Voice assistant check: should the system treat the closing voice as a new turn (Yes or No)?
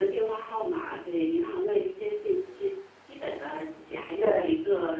No